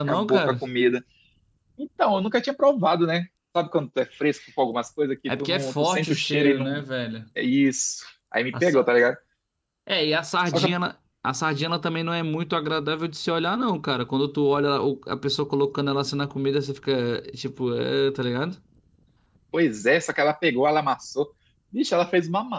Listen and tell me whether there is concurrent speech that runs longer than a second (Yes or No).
Yes